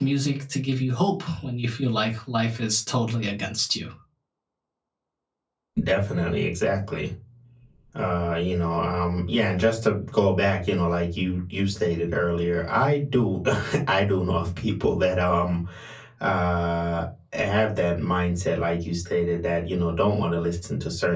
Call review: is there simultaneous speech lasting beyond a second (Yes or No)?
No